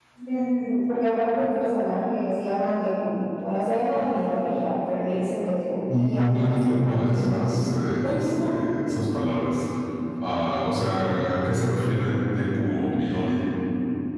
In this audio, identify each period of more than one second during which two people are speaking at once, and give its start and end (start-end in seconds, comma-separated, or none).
5.9-7.4